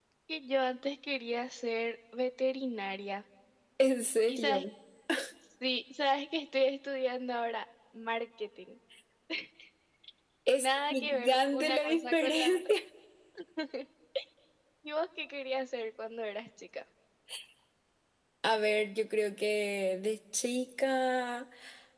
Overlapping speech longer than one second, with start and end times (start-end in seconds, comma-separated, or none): 10.6-12.7